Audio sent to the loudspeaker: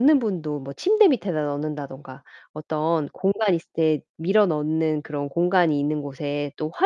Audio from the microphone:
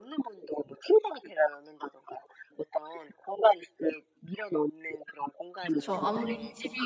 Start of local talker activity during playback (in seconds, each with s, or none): 5.6 s